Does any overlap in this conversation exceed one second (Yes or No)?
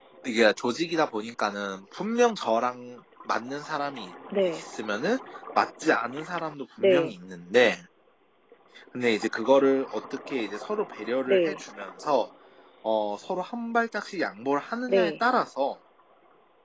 No